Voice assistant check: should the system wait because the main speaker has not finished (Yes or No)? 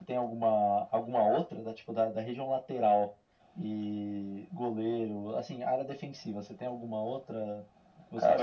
No